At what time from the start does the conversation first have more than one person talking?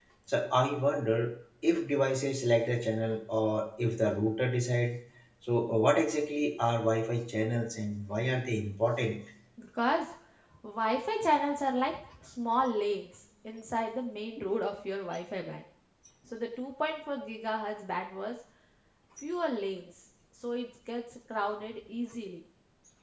none

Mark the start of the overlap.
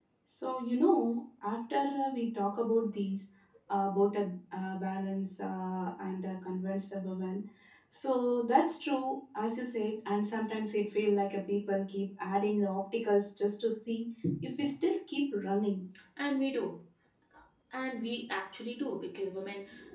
none

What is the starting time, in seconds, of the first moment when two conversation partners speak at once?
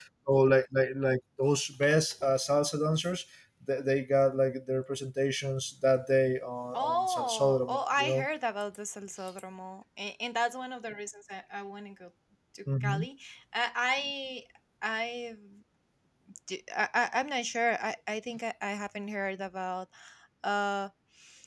6.7 s

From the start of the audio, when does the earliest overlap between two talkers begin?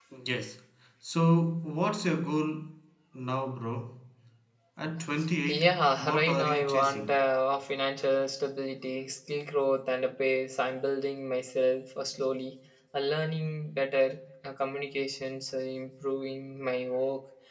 5.5 s

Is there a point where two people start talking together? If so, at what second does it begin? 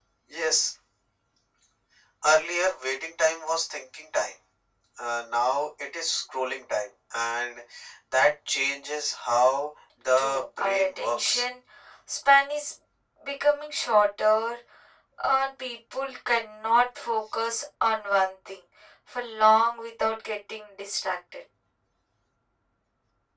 10.2 s

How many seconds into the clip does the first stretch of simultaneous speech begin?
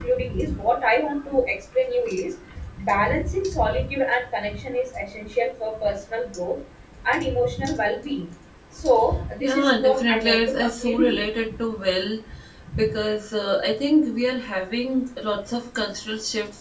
9.4 s

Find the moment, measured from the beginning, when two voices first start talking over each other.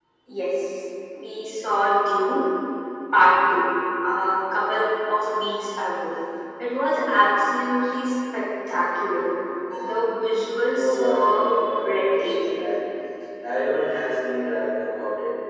10.7 s

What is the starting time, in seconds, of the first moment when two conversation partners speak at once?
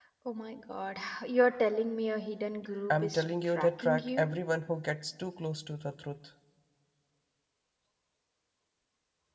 2.9 s

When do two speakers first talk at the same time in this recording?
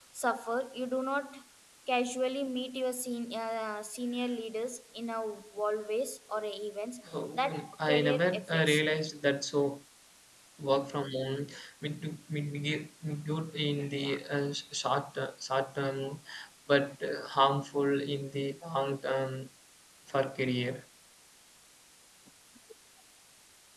7.3 s

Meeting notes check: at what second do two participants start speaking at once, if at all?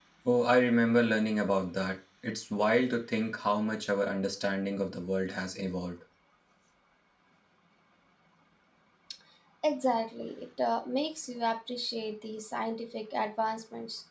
none

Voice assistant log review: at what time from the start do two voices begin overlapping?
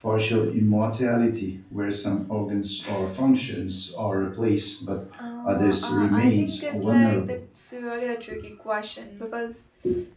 5.4 s

